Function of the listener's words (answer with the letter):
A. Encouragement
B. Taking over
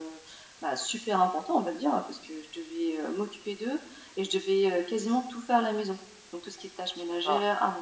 A